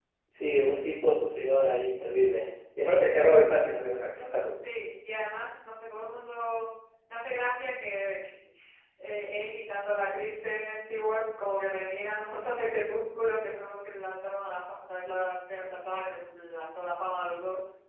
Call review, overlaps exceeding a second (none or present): none